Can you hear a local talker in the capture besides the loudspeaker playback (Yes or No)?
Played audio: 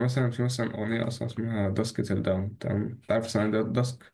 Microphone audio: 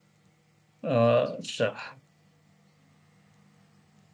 Yes